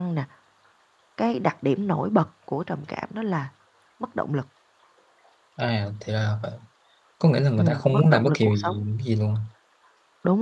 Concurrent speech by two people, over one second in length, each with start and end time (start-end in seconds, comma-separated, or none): 7.6-8.8